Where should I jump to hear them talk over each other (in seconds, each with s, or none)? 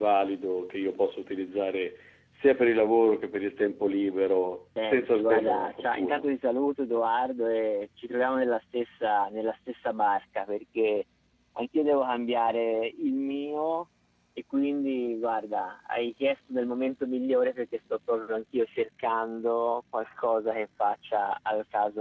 4.8 s